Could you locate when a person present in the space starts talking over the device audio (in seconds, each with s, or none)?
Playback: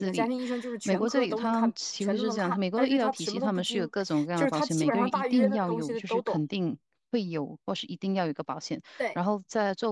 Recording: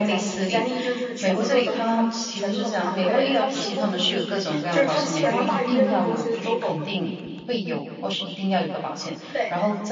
3.0 s